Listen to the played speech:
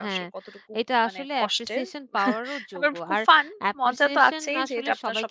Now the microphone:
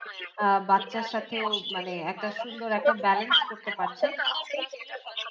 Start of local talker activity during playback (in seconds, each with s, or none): 0.4 s